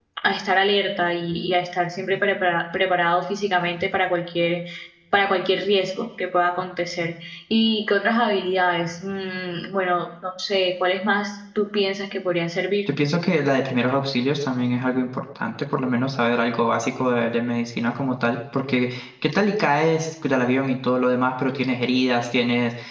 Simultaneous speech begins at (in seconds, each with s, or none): none